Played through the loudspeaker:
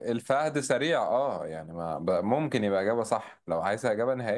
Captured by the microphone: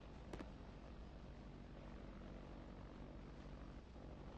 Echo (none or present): none